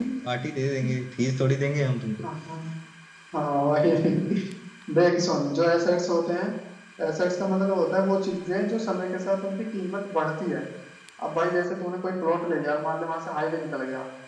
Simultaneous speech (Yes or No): No